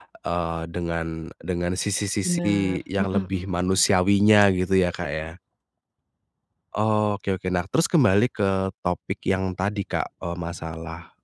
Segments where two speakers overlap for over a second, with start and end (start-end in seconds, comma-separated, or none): 2.2-3.8